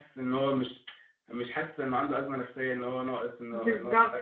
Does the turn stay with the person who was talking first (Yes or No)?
No